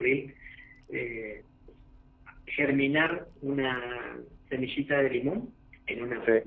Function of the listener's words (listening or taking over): listening